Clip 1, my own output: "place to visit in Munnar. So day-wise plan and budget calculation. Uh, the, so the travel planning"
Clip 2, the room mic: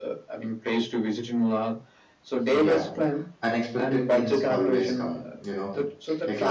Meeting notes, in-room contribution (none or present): present